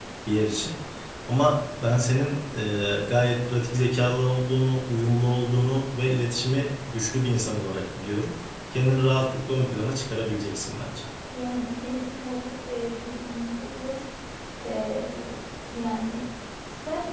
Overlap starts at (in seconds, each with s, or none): none